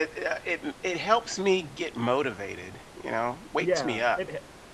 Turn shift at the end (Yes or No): Yes